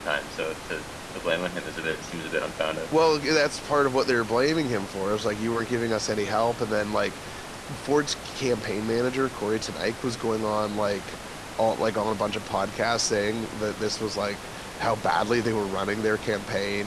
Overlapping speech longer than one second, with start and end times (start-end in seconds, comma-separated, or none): none